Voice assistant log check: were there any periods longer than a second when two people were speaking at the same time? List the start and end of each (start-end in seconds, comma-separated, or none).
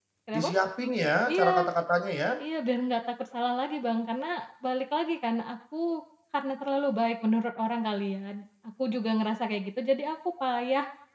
none